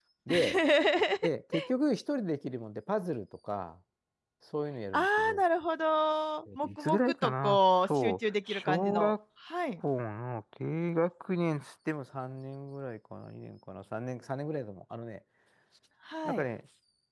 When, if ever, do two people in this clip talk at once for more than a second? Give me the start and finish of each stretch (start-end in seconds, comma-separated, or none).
6.5-9.2